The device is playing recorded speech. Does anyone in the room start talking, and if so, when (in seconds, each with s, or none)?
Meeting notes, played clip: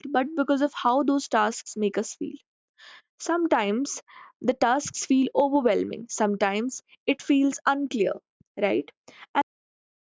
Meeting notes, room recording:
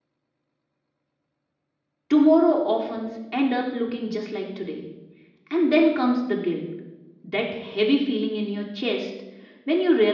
2.1 s